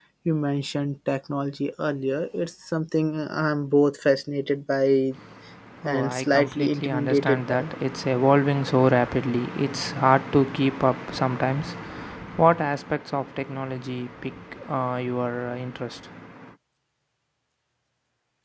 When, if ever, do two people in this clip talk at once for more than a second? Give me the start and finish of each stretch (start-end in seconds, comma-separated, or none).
5.8-7.7